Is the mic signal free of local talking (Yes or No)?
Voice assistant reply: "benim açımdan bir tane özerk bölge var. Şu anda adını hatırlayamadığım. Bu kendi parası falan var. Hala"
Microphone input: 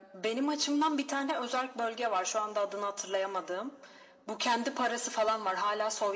Yes